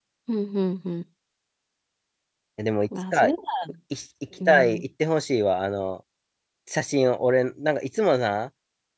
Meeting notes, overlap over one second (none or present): none